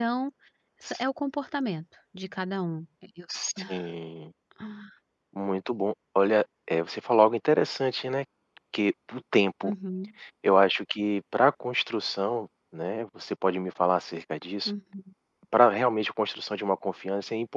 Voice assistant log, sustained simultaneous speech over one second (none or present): none